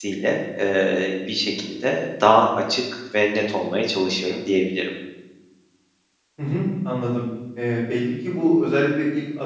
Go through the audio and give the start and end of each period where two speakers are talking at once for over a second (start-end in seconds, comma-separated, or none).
none